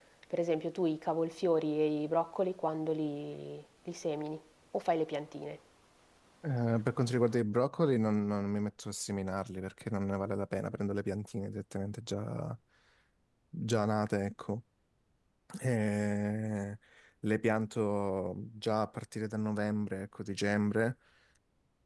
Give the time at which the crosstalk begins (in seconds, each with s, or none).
none